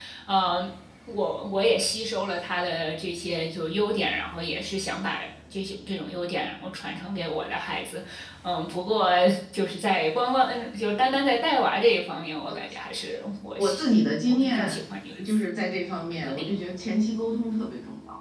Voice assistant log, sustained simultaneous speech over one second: none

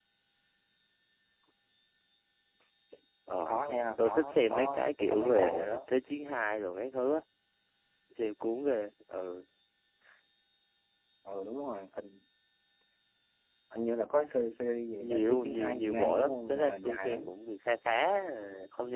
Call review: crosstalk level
present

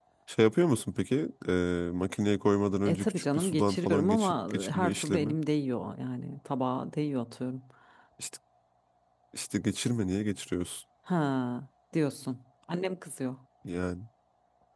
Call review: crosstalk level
present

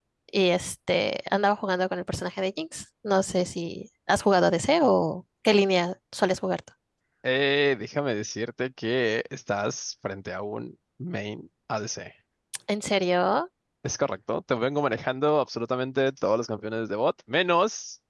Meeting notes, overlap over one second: none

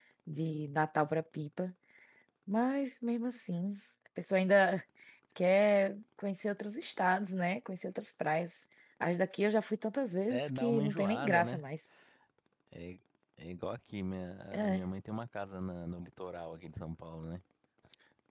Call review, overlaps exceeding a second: present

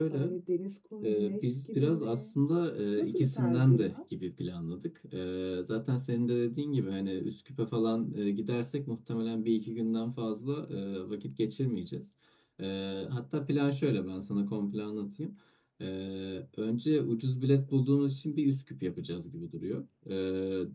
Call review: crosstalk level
present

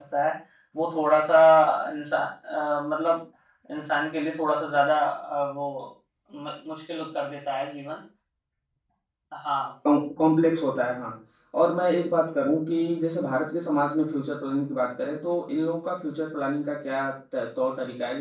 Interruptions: none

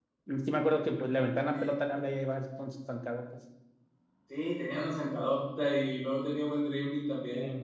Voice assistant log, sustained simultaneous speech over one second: none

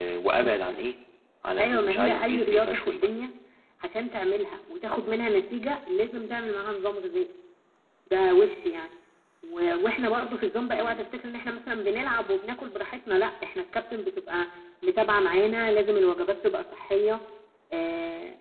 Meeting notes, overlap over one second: present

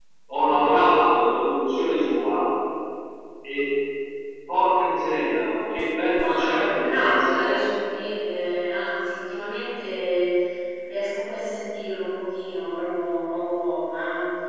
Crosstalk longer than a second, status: present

